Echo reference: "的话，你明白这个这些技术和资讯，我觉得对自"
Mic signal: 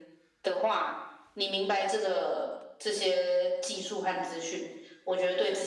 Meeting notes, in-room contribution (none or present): none